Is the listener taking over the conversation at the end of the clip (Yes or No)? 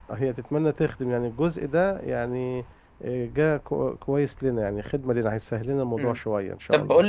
Yes